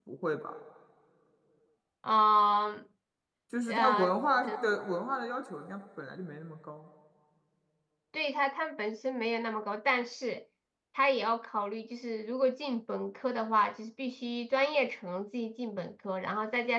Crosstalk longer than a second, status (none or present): none